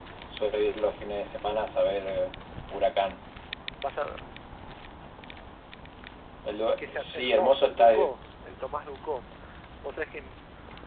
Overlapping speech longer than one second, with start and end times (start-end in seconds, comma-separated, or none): 6.8-8.1